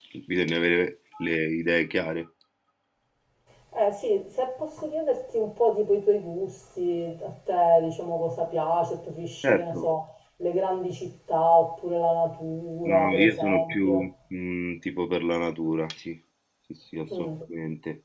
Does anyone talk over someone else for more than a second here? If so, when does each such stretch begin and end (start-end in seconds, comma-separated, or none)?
12.8-14.1